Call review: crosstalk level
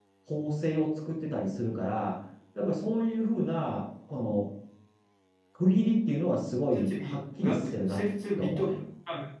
present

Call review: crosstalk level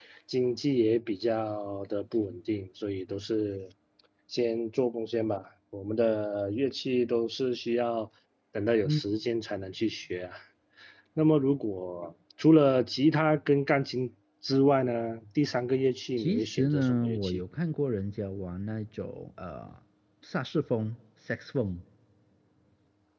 present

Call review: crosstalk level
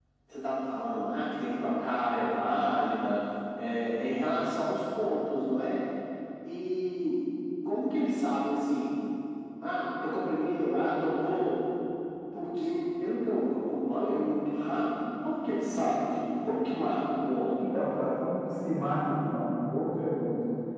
none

